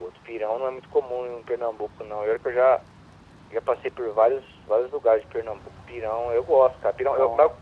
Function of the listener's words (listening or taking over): listening